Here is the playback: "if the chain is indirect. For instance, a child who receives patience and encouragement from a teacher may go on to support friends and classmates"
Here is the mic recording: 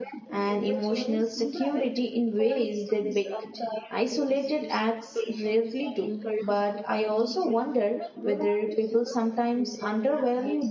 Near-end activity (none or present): present